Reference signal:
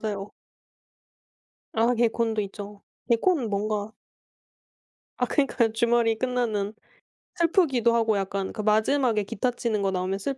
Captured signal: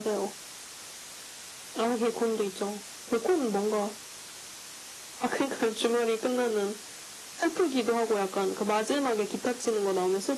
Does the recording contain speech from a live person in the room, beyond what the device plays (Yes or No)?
No